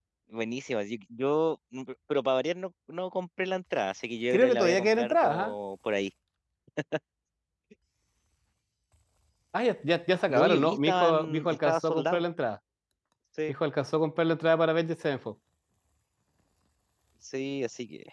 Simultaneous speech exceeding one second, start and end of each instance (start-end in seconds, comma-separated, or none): 4.3-5.5, 10.3-12.2